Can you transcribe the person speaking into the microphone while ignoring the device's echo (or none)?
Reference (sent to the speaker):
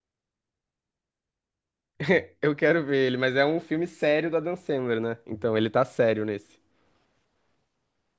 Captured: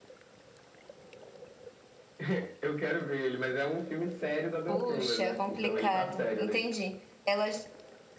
Puxa, é complicado. Entendi. Elas